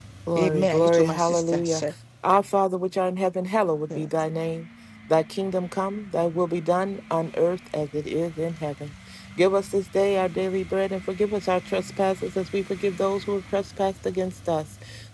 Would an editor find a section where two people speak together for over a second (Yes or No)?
Yes